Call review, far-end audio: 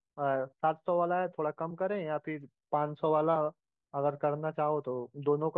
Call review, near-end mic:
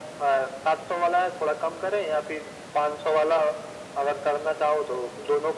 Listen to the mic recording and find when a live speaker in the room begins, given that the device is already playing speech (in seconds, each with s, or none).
none